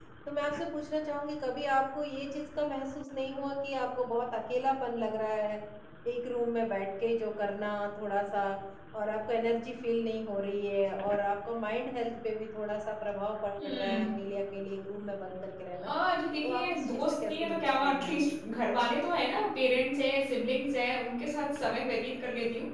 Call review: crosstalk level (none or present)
present